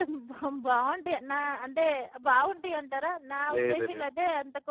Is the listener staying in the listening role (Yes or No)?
Yes